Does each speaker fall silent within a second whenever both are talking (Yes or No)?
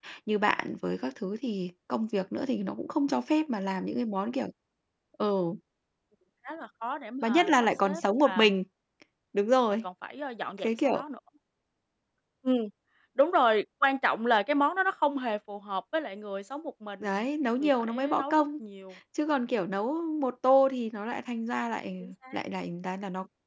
No